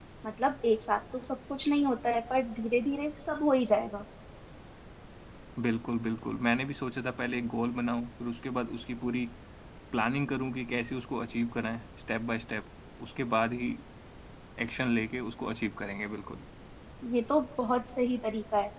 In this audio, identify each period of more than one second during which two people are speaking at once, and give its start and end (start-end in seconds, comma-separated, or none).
none